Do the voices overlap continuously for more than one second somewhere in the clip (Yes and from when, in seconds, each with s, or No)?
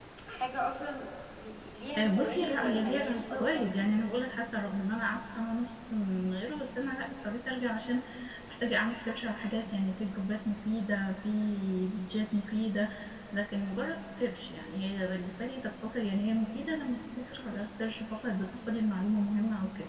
Yes, from 2.0 s